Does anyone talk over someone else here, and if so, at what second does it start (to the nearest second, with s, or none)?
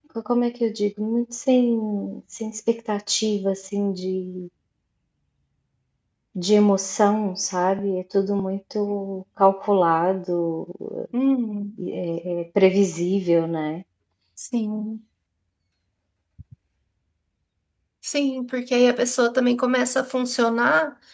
none